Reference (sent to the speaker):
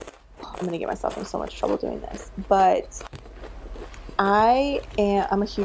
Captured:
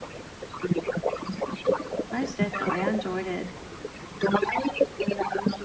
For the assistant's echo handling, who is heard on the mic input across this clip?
both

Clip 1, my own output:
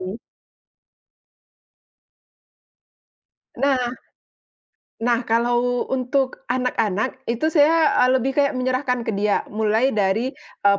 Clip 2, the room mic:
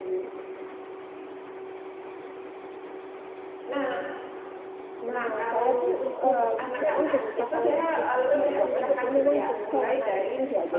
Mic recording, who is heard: both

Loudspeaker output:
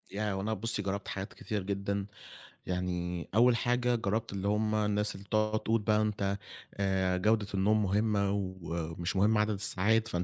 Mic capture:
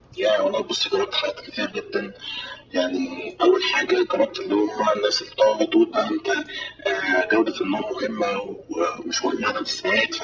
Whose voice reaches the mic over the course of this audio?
echo only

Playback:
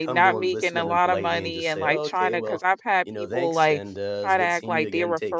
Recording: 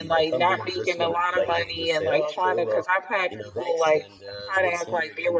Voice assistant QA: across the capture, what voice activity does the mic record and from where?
echo only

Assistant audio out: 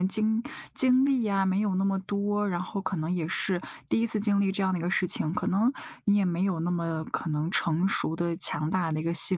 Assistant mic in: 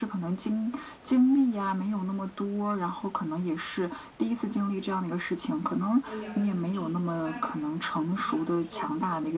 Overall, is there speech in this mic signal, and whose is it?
both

